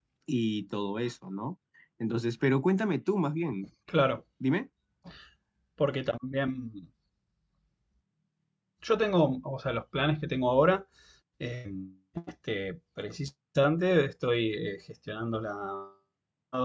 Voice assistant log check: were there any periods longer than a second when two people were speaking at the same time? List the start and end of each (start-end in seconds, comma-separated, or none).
none